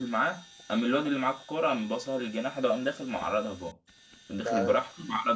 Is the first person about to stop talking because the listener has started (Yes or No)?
No